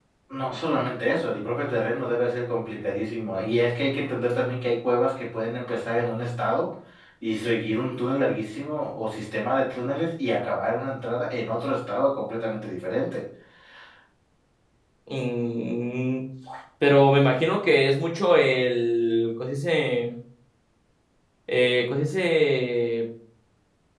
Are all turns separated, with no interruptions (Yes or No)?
Yes